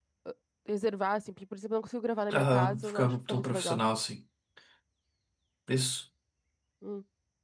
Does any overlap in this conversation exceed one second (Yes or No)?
Yes